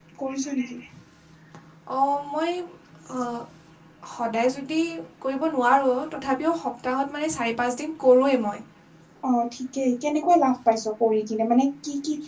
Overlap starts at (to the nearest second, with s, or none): none